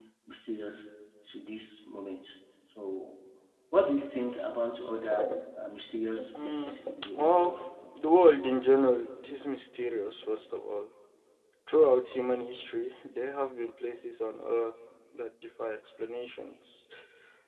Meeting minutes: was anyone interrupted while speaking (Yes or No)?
Yes